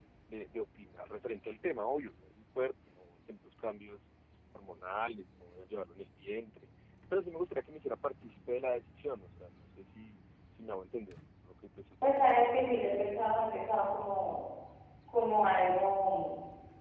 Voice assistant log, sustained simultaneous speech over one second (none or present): none